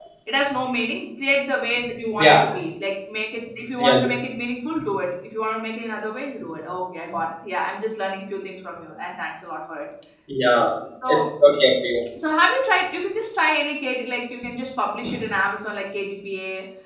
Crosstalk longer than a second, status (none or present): none